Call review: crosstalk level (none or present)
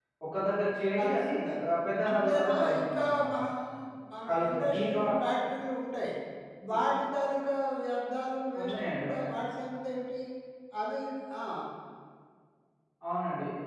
present